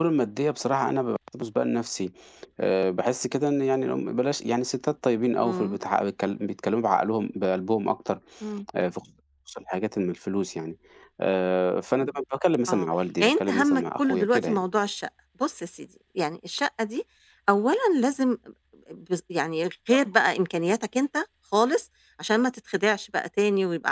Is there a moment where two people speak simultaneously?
Yes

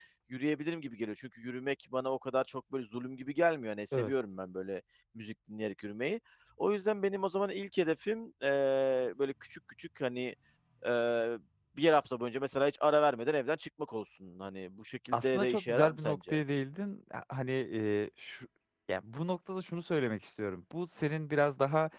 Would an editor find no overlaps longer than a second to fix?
No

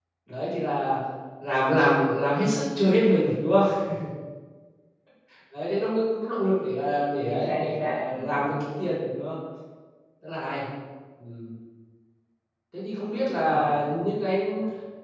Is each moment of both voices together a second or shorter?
No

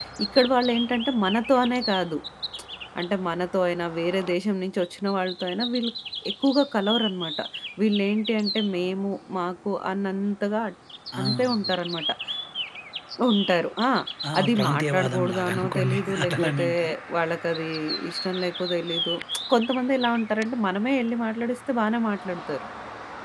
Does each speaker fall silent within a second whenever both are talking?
No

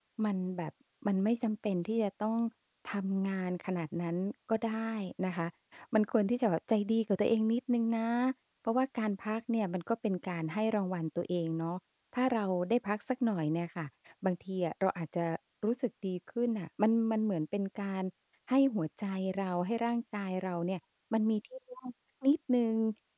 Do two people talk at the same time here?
No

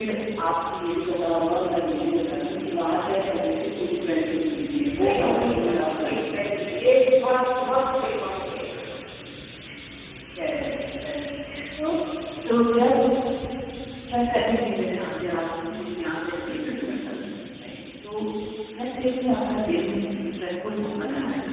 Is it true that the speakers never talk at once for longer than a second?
No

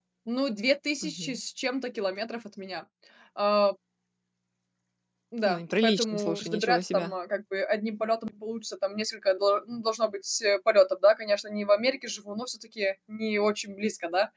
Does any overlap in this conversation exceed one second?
Yes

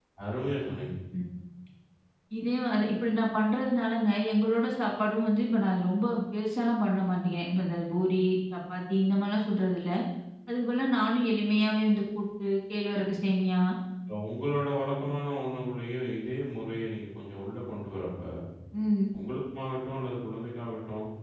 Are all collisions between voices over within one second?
Yes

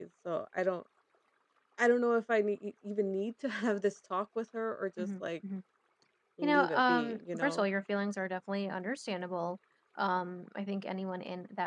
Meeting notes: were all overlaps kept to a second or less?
No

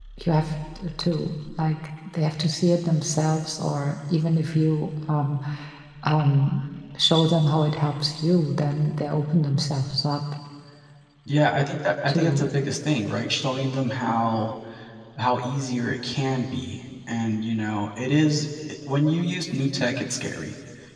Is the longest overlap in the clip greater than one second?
No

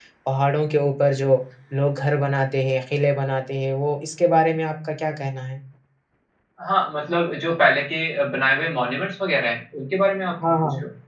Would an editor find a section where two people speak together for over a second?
No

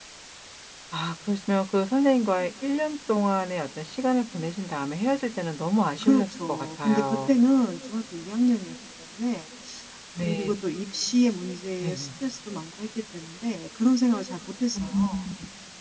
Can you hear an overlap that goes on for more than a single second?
Yes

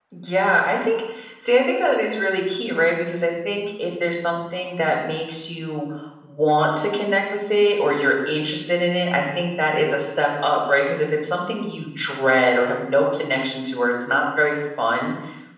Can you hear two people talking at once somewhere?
No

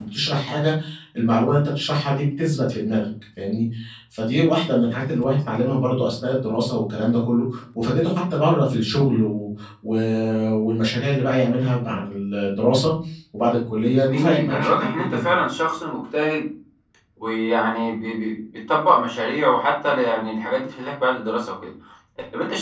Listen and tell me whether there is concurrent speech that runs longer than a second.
Yes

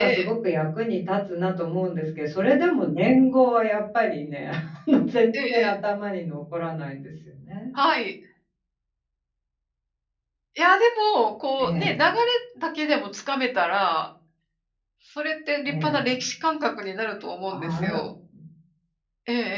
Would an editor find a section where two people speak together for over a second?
No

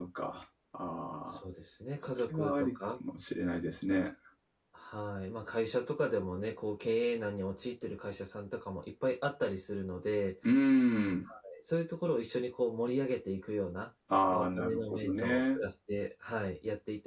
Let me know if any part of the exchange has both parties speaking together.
Yes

